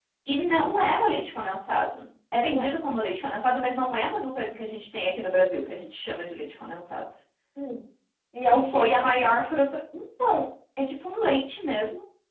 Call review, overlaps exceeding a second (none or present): none